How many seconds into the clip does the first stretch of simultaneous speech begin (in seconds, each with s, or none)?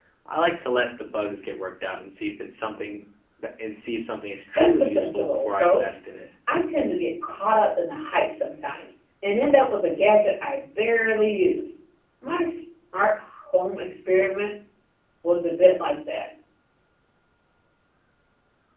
4.6 s